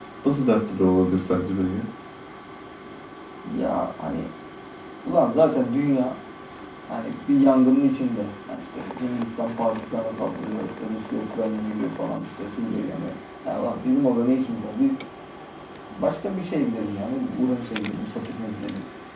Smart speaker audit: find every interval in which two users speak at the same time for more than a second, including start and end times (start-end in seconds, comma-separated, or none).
none